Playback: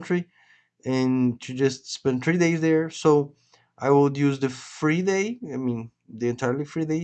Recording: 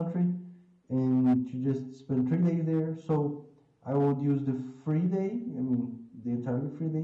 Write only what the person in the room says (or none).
none